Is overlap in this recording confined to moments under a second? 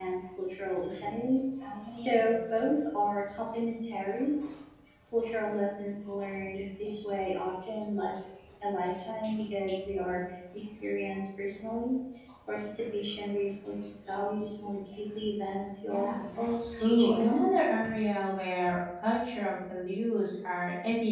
No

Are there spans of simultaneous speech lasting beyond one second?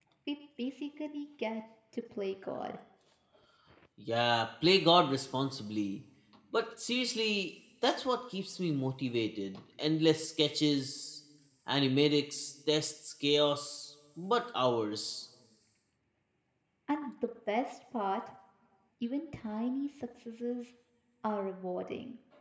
No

